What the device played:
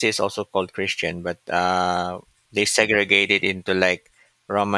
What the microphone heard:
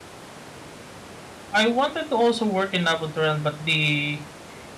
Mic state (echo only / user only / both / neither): user only